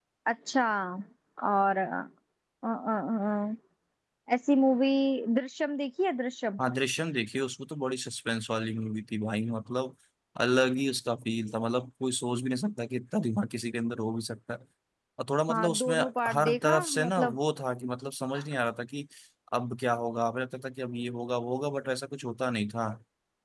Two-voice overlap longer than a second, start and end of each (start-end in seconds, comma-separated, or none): 15.5-17.4